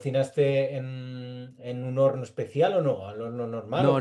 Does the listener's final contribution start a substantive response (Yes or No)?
Yes